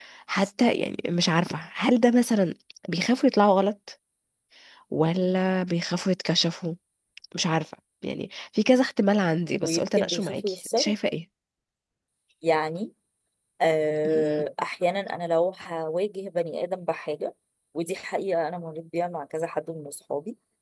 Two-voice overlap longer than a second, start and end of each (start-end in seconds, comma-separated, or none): 9.6-10.9